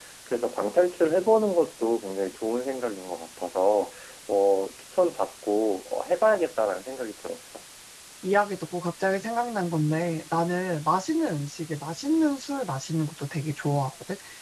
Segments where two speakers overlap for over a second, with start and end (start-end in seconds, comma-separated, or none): none